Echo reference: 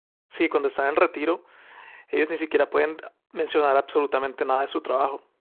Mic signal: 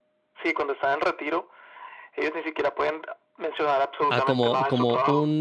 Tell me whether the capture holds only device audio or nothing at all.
No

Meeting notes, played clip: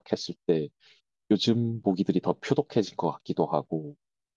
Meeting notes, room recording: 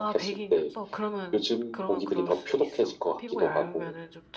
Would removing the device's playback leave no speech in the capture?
No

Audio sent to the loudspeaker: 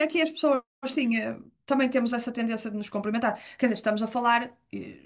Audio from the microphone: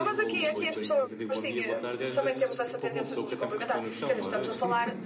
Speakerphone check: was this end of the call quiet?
No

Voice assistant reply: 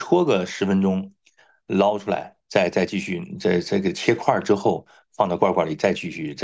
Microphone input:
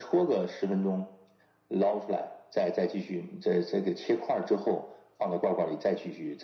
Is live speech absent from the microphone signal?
Yes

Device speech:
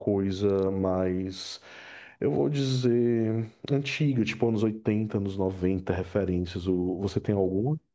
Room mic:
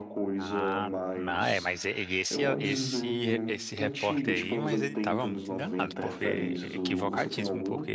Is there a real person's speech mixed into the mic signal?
Yes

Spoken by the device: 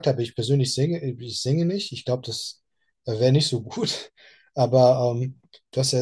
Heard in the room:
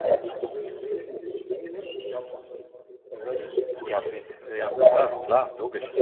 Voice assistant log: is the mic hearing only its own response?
No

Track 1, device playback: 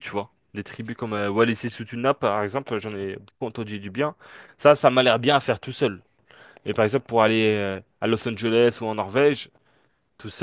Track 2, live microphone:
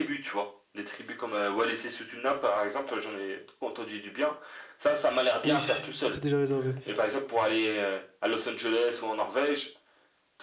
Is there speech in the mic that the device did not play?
Yes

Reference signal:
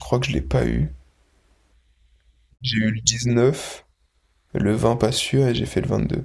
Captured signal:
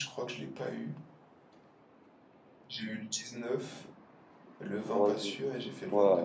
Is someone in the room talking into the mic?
Yes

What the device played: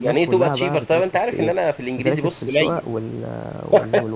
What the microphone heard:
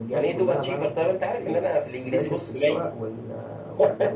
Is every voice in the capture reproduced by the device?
Yes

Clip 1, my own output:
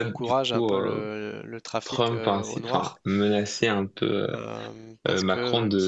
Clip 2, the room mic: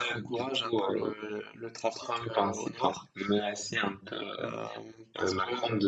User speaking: No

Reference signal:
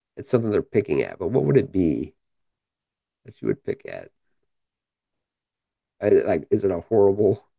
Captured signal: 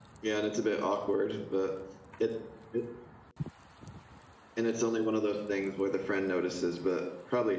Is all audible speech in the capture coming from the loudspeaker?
No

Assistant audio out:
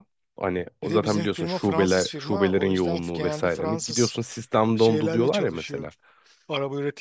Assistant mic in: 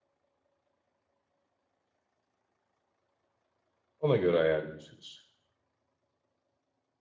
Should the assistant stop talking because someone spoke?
Yes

